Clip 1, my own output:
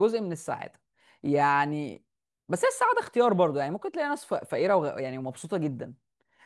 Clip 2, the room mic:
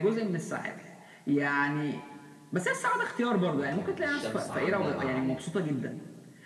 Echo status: present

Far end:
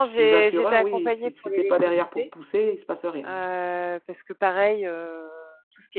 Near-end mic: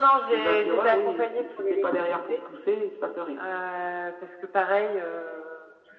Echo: present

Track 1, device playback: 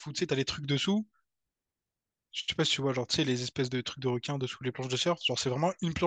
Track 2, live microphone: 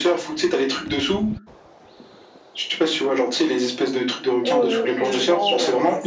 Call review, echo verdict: present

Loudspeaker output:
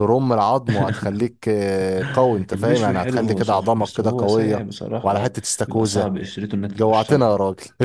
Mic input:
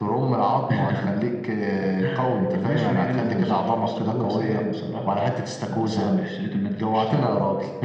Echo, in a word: present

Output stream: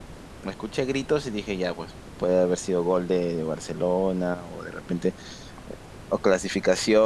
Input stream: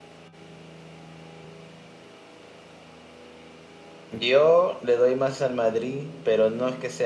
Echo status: none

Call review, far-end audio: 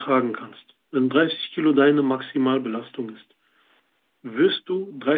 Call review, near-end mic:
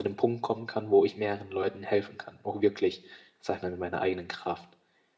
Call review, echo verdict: none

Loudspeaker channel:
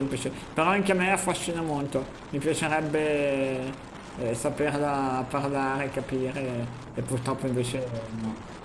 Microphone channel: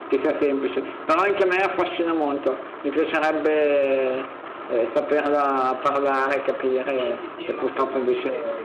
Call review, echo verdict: present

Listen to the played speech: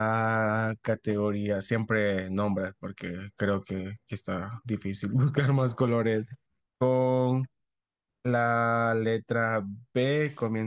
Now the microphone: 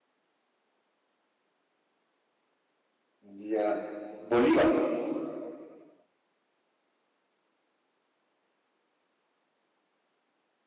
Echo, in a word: none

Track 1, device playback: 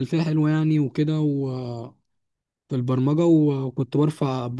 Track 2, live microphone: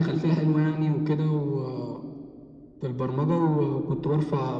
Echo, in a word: present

